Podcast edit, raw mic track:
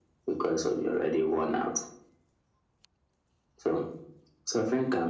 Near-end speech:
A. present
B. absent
B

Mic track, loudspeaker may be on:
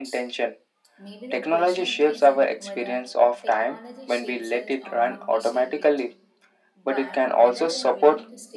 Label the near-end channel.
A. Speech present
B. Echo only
A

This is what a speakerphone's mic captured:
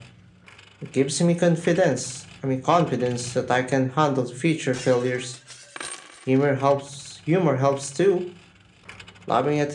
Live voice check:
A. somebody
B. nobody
B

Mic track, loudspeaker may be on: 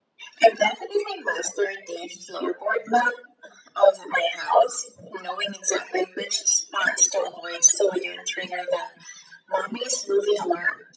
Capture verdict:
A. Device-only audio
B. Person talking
A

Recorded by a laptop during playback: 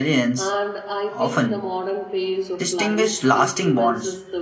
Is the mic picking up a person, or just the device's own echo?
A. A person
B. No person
A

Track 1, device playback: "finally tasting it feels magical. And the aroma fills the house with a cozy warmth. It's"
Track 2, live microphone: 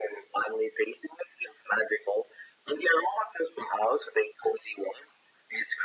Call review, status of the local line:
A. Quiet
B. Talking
A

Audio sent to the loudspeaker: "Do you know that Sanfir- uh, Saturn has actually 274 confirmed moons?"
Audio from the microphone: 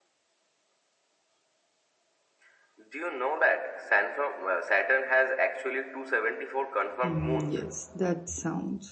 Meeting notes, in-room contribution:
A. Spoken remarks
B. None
A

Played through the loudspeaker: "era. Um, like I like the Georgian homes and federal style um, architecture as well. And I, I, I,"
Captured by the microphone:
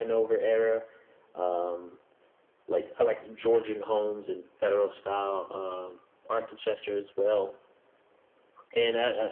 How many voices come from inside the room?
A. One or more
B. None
B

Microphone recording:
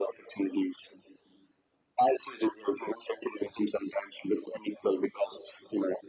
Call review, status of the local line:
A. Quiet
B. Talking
A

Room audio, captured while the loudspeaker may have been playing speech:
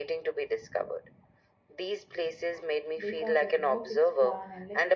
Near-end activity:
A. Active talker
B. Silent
A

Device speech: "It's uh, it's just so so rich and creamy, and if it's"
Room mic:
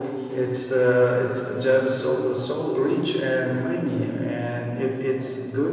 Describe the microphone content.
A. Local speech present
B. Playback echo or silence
B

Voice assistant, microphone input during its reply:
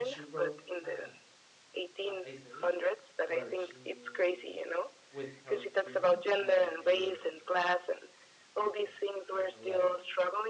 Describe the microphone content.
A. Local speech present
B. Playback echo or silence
A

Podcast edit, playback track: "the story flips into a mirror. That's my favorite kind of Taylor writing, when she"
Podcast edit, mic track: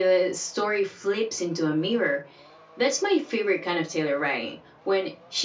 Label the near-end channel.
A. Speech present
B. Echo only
B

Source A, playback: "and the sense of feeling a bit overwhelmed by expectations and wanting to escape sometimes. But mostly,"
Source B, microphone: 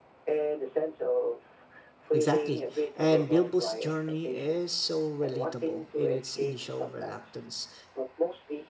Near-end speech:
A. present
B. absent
A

